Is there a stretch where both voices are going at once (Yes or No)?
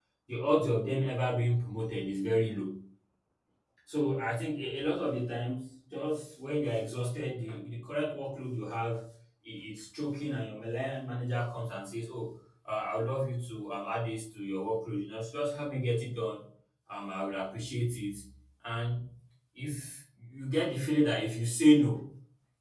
No